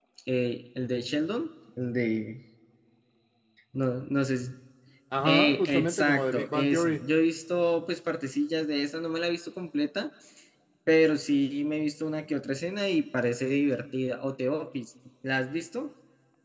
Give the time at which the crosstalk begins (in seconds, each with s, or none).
5.2 s